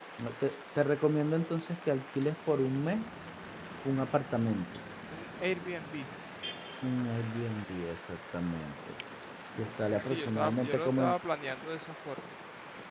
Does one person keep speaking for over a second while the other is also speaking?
Yes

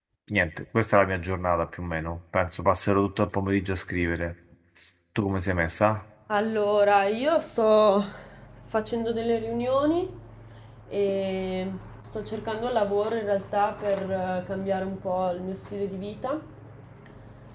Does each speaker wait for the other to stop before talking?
Yes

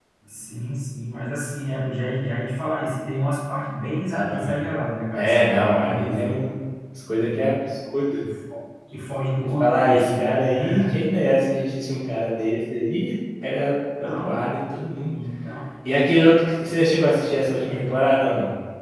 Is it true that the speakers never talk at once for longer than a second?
No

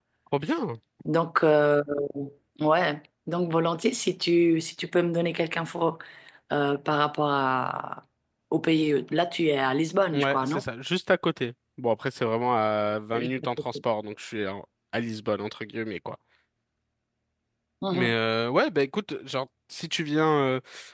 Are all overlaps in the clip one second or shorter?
Yes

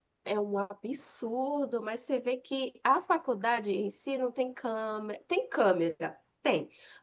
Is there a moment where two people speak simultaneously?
No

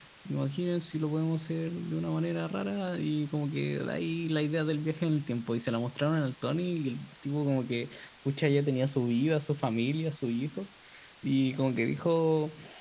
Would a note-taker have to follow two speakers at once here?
No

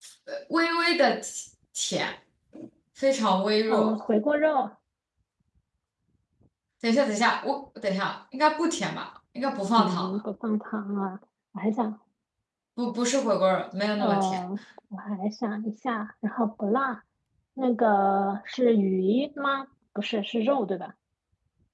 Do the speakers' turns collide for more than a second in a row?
No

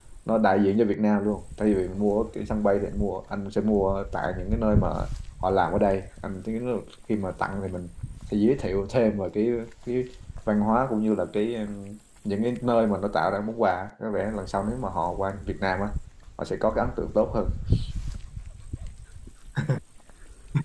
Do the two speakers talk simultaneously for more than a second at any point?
No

